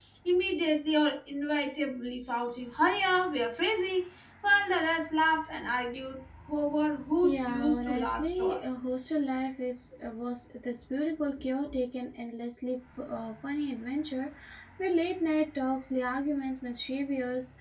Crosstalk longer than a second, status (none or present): present